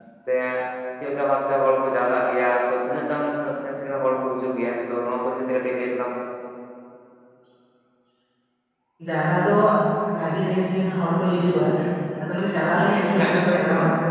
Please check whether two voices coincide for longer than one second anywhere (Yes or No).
Yes